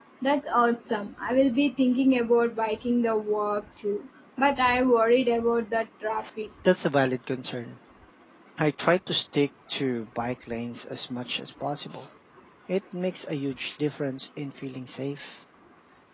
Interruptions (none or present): none